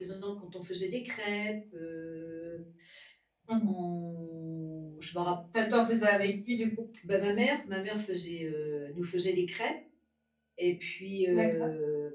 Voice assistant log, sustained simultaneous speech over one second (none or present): none